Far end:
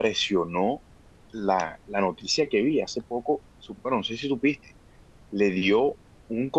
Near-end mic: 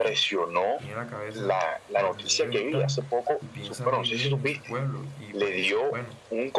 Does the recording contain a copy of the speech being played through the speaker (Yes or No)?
Yes